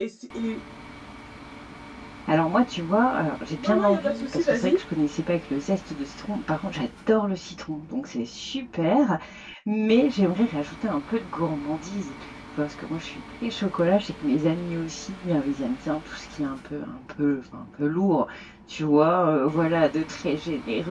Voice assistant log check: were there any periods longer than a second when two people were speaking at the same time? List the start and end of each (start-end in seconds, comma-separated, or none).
3.6-4.8